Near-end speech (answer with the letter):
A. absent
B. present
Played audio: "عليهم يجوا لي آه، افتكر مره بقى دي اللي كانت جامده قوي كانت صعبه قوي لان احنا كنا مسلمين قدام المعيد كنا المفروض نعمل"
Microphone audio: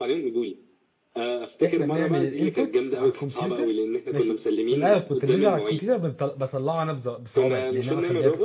B